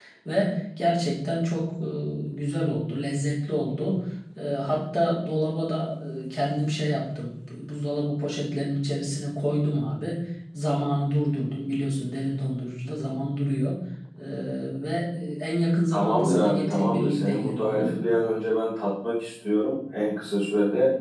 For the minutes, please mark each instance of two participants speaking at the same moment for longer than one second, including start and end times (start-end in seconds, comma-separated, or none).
15.9-18.0